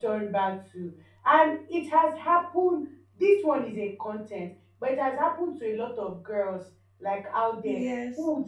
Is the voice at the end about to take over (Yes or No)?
No